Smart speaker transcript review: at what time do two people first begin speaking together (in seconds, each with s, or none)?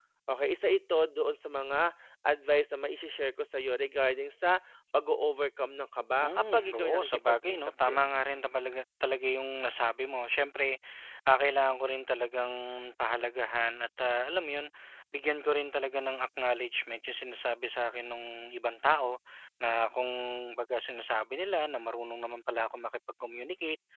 6.2 s